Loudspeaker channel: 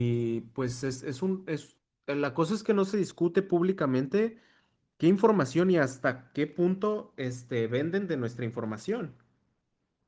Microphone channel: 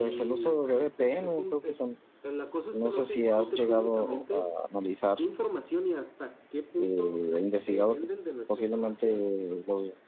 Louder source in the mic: user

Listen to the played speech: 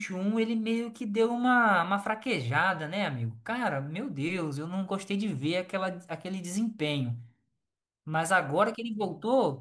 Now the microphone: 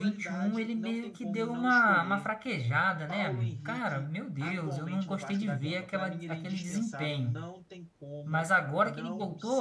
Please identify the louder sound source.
echo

